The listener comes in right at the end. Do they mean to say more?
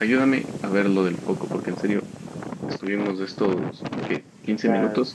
No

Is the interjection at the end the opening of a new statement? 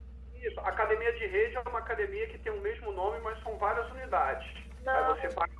No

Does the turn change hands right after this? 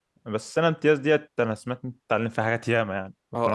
Yes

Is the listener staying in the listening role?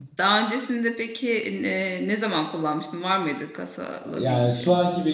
No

